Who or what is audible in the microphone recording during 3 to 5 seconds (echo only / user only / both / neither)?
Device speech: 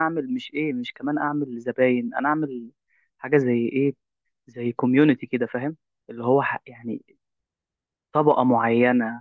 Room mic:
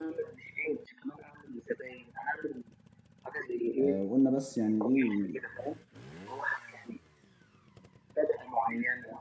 both